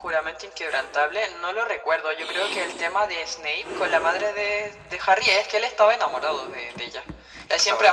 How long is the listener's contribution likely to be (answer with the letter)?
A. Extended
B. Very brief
B